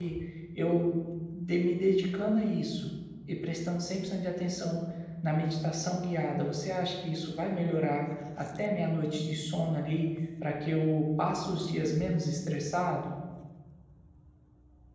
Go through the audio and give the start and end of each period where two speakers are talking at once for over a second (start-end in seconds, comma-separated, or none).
none